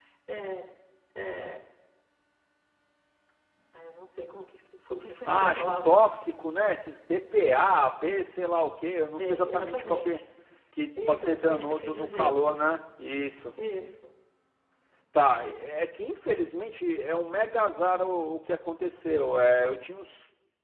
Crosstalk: present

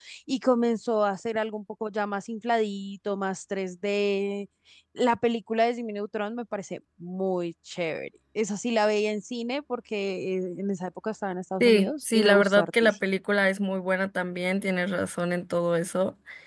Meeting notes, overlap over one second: present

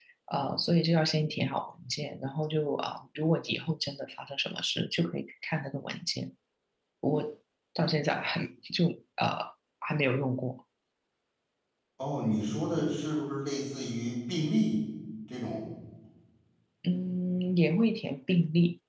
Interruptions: none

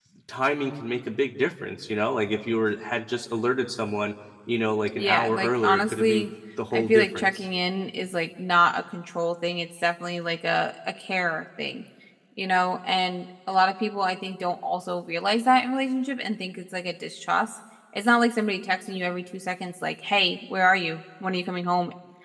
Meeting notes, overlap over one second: present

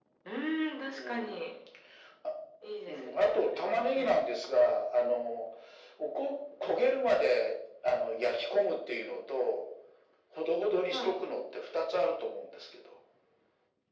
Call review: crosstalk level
present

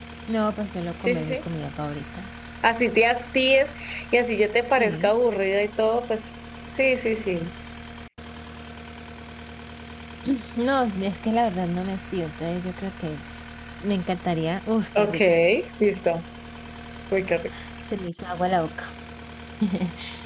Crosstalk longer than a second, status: none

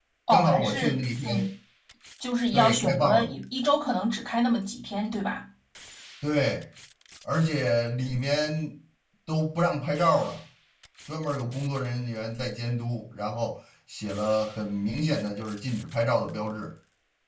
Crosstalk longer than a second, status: present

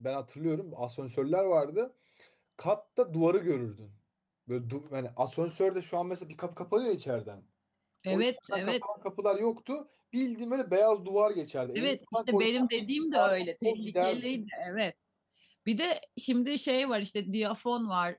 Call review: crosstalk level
present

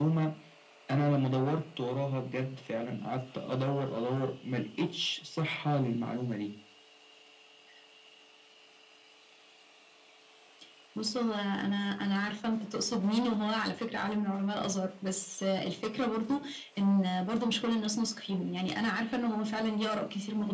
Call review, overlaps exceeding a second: none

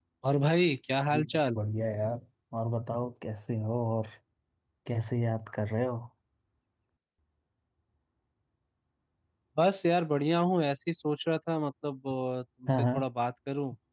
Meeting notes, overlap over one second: none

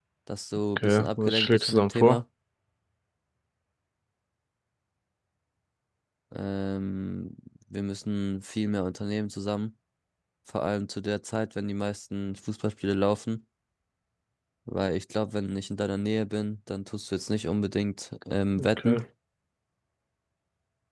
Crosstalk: present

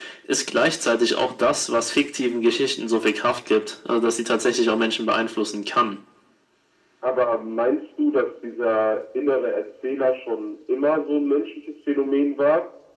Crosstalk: none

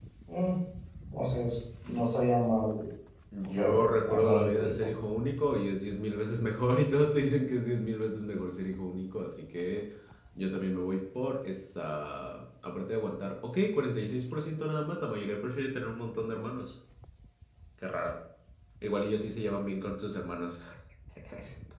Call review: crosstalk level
present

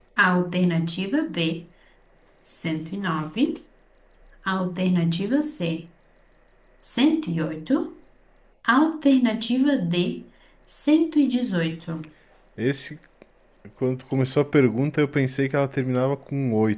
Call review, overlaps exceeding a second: none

